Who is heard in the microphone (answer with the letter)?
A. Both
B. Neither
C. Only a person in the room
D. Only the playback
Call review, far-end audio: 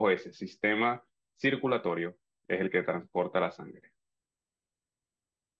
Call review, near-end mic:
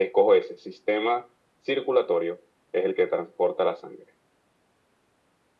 D